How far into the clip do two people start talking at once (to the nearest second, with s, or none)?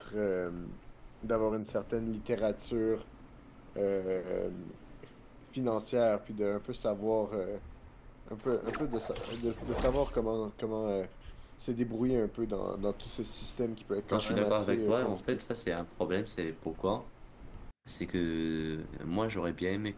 14 s